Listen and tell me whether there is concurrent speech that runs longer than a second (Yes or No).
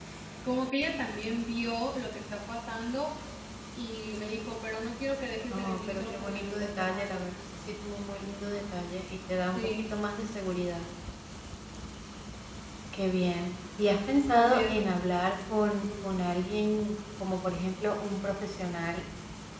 Yes